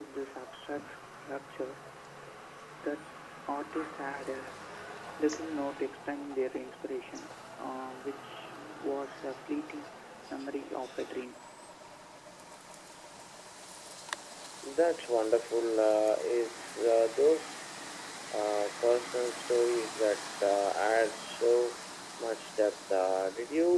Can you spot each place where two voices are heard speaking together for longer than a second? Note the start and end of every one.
none

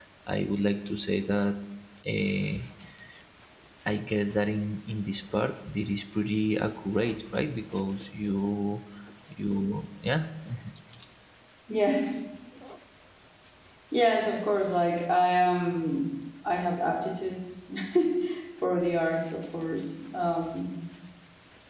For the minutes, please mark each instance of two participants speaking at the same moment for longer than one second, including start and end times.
none

